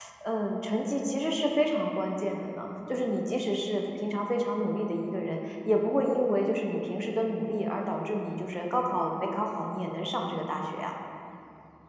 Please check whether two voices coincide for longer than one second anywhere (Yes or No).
No